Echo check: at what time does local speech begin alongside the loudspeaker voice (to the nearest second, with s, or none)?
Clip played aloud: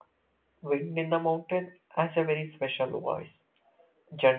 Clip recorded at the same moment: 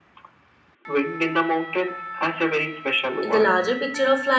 3 s